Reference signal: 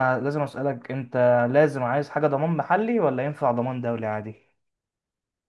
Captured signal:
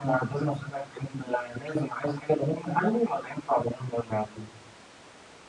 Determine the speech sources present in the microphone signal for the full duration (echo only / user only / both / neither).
echo only